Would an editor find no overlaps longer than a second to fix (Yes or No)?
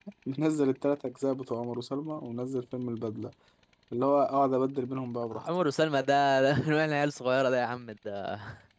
Yes